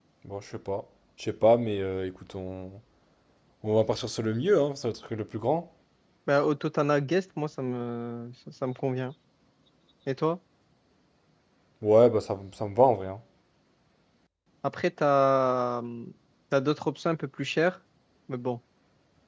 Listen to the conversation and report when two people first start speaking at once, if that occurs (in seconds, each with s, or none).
none